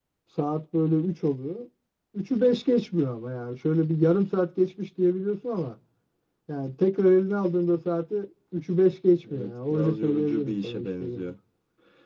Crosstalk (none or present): present